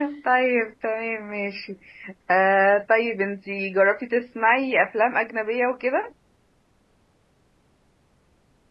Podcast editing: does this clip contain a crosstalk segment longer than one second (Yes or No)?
No